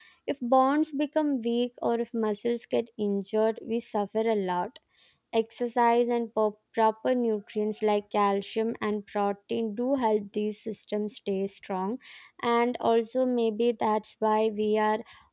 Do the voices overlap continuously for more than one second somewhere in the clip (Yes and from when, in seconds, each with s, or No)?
No